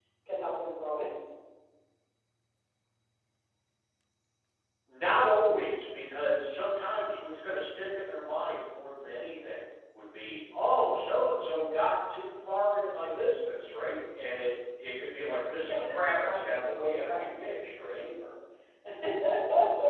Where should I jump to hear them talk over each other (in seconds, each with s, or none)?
15.7 s